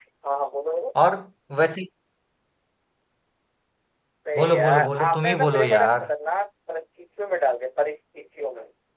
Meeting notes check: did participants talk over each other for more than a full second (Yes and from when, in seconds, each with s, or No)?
Yes, from 4.4 s